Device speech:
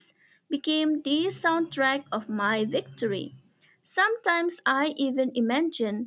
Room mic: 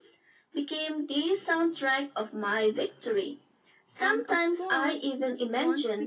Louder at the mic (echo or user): echo